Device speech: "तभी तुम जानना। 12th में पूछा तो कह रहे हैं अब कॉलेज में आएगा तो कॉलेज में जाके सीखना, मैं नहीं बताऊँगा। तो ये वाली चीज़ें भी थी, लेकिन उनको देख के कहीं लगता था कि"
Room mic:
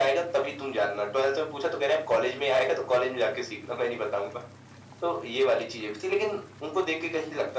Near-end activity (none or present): none